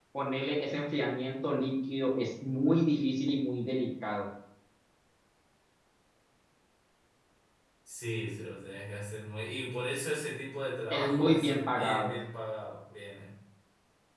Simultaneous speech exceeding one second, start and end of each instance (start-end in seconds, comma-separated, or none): 10.9-12.1